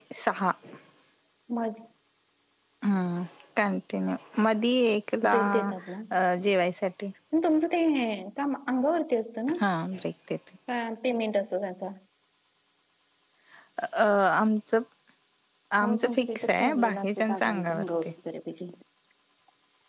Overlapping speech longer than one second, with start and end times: 15.8-17.8

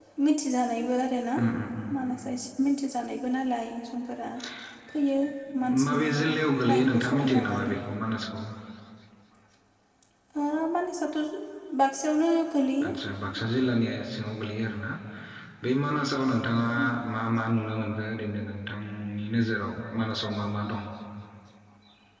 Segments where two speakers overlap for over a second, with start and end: 5.8-7.8

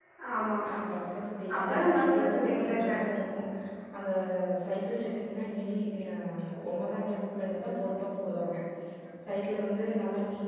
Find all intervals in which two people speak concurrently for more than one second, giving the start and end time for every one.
1.6-2.9

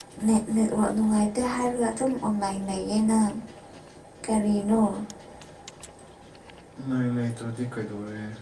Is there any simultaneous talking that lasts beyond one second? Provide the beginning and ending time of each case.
none

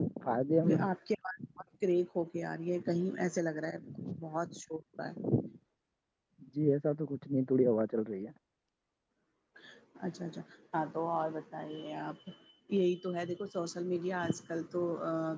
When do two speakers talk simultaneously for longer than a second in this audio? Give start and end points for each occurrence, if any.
none

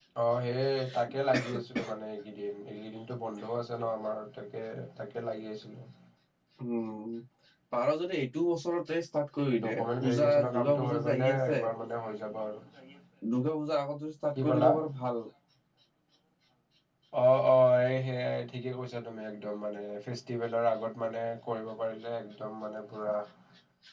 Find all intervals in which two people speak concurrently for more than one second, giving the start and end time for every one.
9.6-11.6

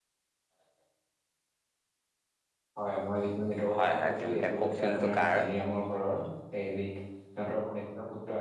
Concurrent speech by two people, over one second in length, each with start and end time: 3.7-5.4

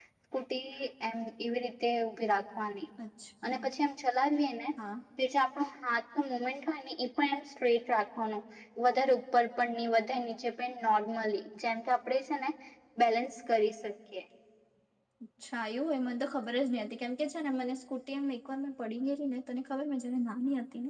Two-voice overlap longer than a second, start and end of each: none

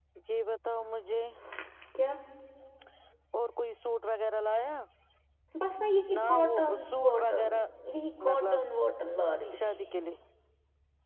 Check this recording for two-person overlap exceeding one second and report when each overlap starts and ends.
6.1-7.6

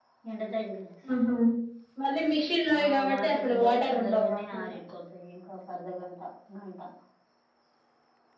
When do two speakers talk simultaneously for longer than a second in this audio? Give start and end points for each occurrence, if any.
2.9-4.7

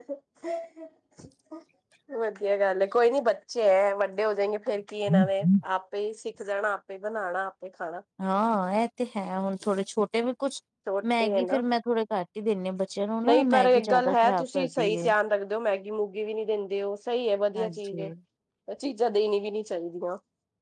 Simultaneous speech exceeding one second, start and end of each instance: 13.2-15.1

